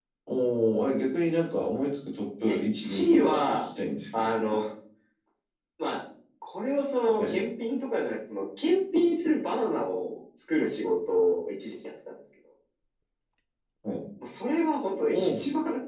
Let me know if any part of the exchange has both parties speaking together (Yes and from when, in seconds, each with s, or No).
Yes, from 2.4 s